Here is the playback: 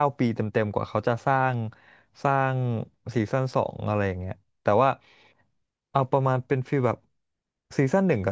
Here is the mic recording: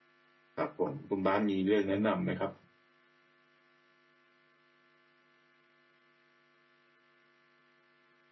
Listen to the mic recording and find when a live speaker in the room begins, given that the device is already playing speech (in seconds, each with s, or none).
0.5 s